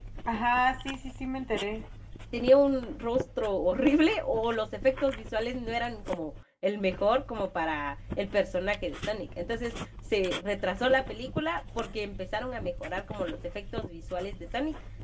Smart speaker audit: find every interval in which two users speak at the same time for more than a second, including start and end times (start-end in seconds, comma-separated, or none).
none